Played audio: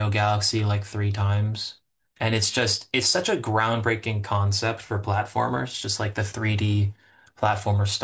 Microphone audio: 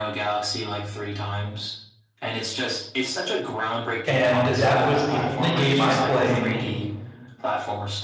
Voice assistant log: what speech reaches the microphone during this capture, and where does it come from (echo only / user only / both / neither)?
both